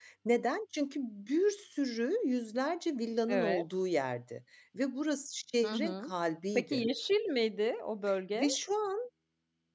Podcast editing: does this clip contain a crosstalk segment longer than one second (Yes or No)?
No